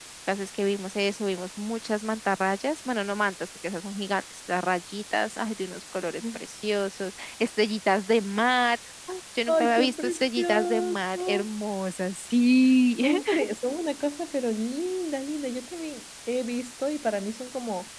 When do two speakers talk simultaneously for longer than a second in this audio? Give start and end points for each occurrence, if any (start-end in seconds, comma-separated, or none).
9.5-11.5